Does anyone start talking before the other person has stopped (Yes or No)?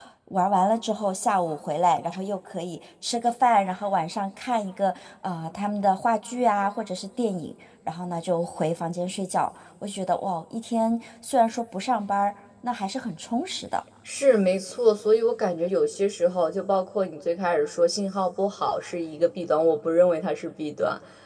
No